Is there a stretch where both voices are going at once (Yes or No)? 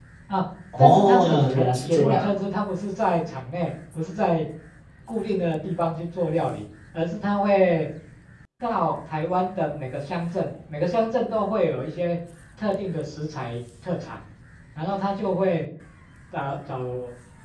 Yes